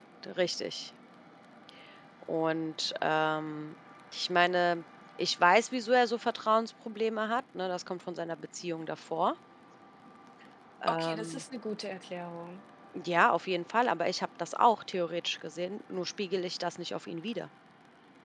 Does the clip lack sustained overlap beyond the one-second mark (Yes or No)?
Yes